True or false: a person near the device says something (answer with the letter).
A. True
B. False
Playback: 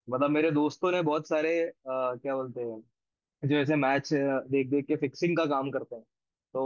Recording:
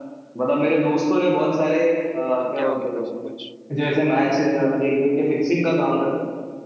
A